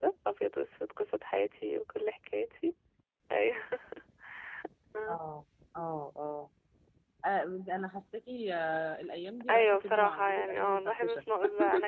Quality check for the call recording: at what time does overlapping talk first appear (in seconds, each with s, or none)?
9.5 s